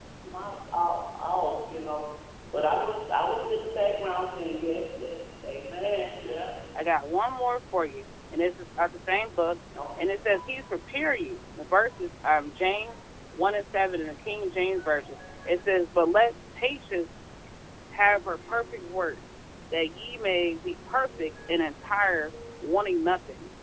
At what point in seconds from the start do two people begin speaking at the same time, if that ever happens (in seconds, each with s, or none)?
none